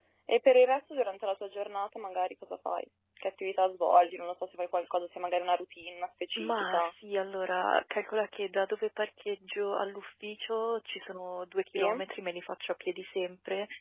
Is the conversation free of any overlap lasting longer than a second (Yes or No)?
Yes